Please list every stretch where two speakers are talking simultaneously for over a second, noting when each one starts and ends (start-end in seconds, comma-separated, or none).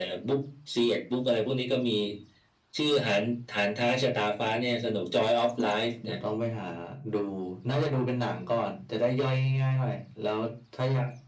none